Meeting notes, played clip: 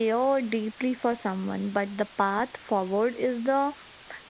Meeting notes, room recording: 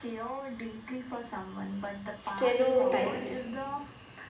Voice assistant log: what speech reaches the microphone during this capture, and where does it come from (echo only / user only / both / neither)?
both